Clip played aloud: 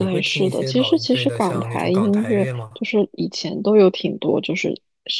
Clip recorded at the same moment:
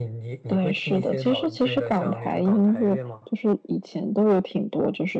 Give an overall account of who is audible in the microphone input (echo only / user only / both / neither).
echo only